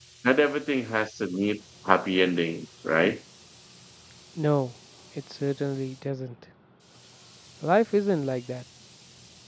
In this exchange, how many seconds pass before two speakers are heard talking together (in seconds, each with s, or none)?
none